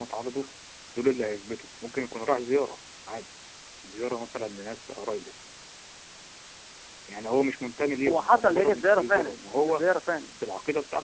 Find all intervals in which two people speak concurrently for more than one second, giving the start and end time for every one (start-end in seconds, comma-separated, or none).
8.1-9.8